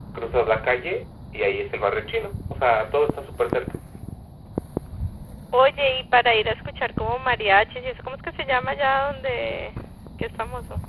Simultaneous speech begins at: none

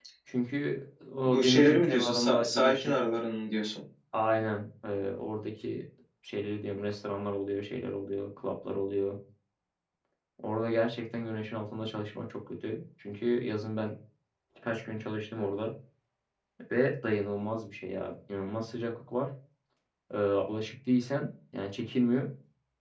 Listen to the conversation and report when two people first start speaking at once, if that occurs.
1.2 s

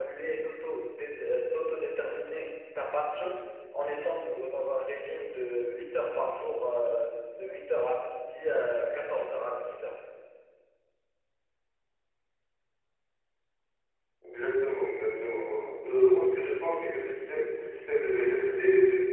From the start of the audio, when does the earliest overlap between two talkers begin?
none

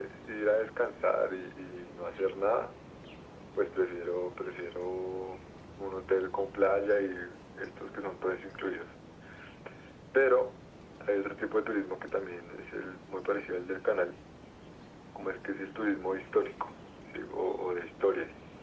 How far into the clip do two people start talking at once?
none

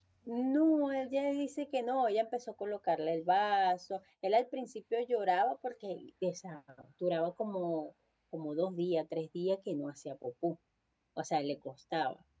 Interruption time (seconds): none

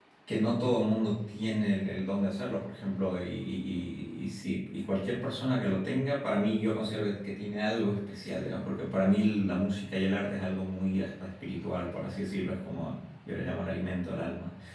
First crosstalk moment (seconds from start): none

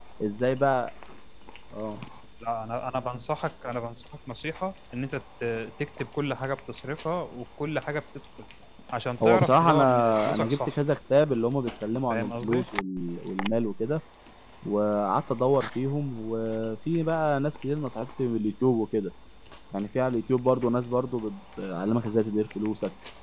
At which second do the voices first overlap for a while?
9.2 s

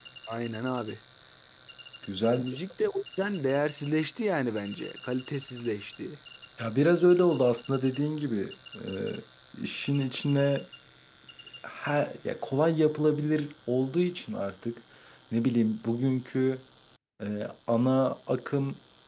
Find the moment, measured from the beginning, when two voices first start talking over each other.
none

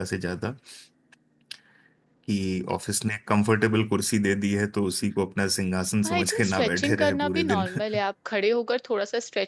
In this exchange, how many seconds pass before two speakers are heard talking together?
6.0 s

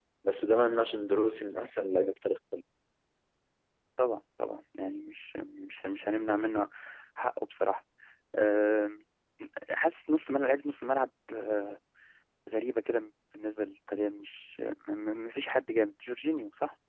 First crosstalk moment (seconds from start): none

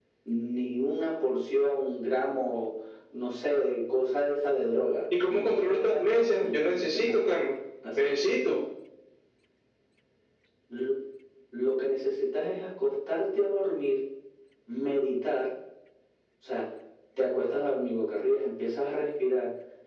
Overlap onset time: 5.1 s

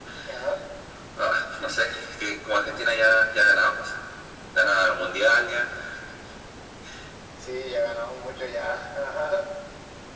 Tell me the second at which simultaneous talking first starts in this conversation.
none

